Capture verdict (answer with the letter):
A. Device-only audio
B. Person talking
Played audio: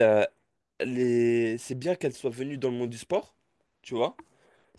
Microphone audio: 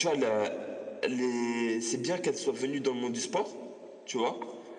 A